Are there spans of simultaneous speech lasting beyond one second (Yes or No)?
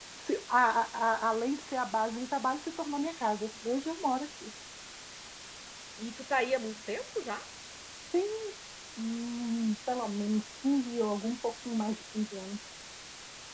No